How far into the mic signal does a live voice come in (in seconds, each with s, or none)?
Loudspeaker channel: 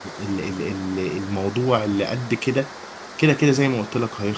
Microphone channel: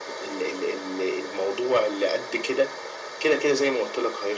none